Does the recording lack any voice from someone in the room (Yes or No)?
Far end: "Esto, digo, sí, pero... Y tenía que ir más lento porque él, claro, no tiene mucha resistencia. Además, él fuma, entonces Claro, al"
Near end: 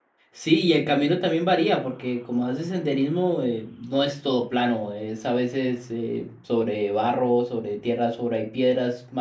No